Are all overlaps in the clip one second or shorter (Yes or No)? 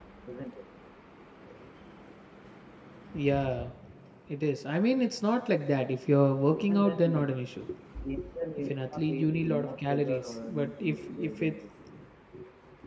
No